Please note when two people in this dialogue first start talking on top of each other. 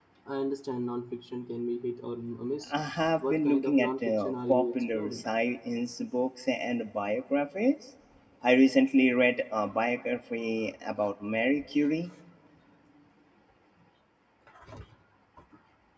3 s

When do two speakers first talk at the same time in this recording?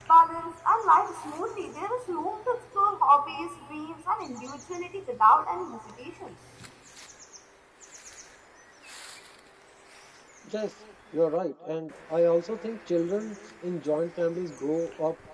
none

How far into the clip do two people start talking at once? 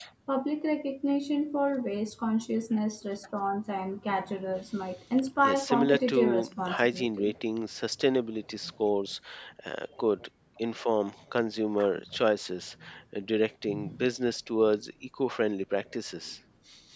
5 s

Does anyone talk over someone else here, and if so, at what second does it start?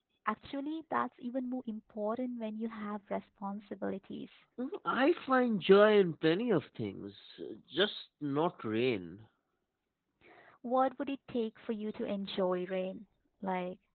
none

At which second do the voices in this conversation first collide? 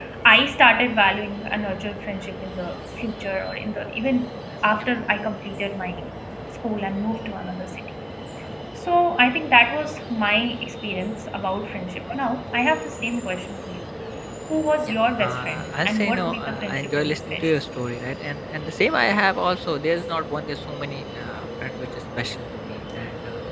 15 s

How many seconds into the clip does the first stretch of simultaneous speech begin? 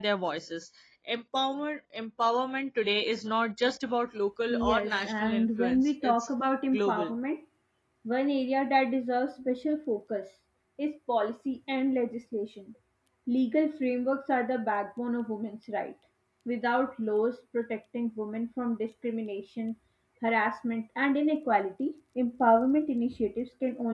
5 s

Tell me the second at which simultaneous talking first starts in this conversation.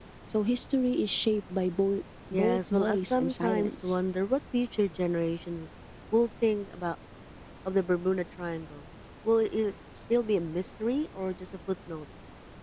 2 s

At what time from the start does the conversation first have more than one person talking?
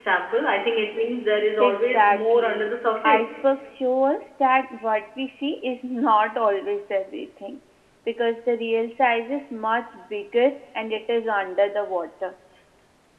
2 s

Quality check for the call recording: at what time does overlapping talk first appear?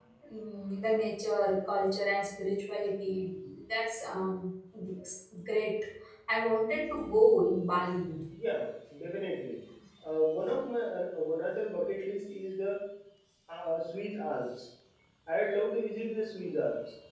none

